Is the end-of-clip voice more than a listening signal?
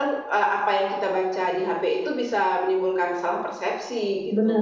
Yes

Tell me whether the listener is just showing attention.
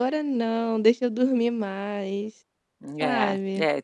No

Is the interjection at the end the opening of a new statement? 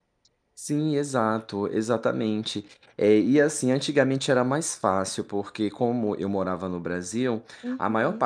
No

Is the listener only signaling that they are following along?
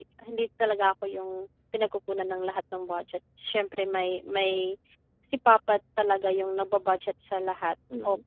No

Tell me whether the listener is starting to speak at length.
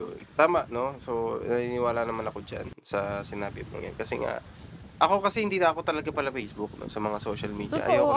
Yes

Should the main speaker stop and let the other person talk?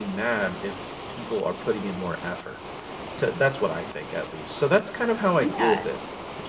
No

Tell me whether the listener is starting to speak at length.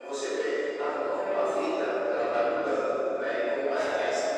No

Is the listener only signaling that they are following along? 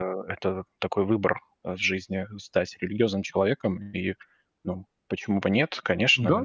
No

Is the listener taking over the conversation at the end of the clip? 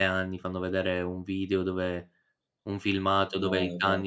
No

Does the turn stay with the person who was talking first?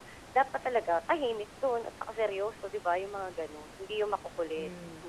No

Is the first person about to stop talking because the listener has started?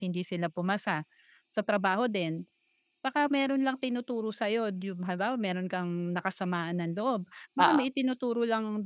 No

